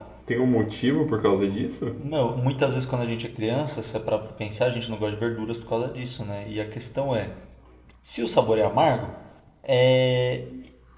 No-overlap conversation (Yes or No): Yes